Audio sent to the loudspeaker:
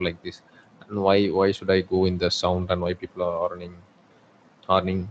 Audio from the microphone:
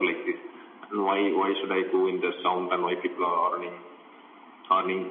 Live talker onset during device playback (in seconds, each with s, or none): none